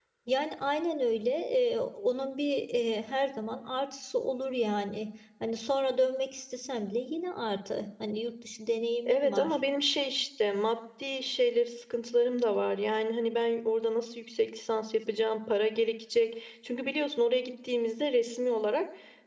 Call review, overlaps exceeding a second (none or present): none